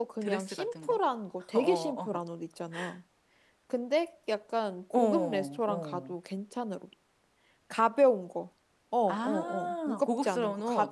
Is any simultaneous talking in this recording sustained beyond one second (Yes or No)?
Yes